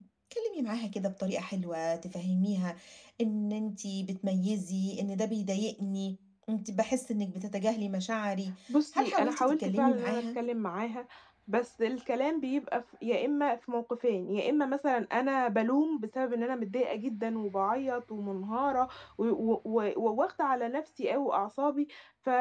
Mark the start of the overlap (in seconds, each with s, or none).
8.9 s